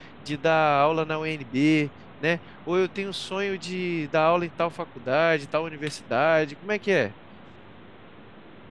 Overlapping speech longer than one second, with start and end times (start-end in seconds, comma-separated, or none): none